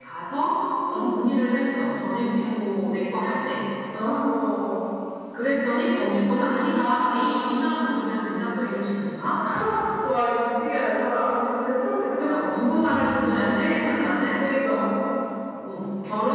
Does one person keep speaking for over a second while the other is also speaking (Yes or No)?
Yes